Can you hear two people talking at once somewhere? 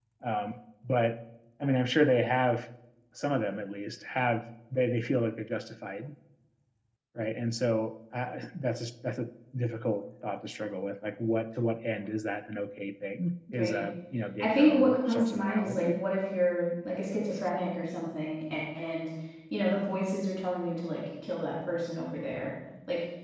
Yes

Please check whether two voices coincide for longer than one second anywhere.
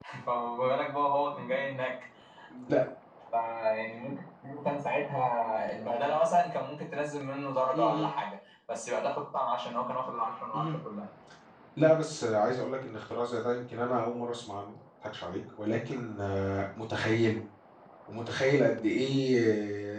No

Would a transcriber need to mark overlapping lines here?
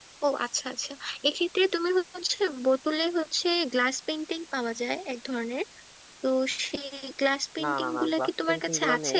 Yes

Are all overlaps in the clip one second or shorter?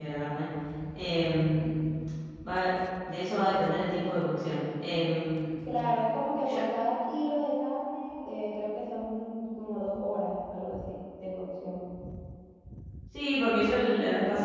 Yes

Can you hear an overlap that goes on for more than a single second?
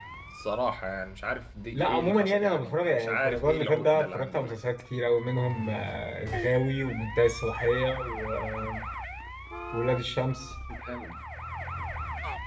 Yes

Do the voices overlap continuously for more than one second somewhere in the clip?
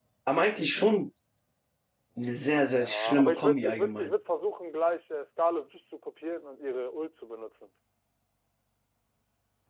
Yes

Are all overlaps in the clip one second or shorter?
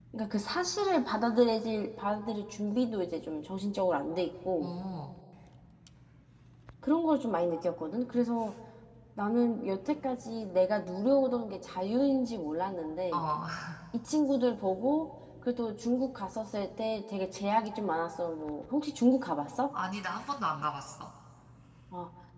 Yes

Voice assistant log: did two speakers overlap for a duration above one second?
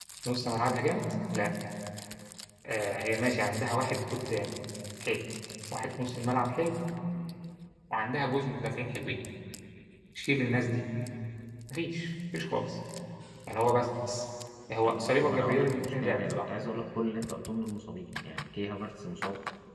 Yes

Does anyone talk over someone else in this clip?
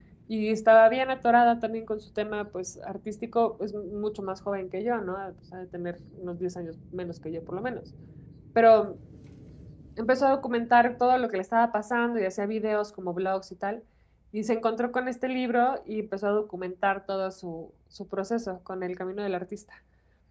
No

